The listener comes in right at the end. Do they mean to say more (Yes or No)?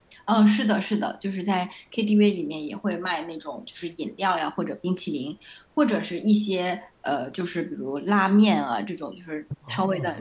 No